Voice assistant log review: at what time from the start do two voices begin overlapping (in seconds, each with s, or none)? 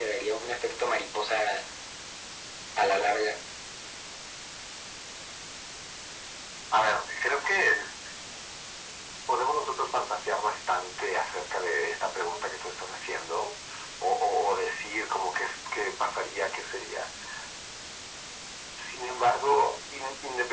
none